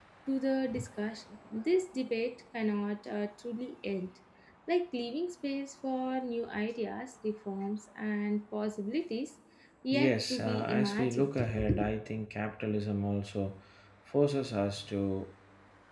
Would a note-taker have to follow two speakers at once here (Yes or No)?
Yes